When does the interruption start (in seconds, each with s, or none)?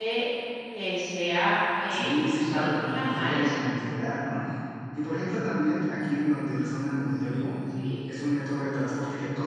1.9 s